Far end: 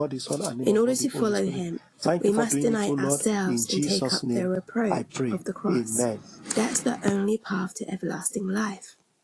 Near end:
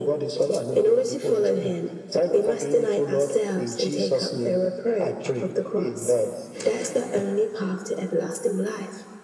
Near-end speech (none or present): none